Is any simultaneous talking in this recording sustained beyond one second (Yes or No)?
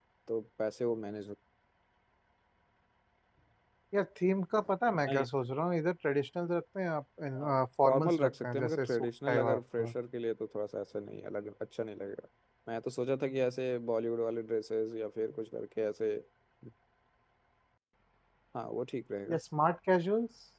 Yes